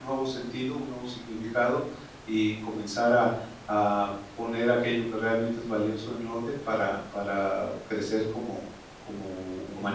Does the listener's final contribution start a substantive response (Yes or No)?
Yes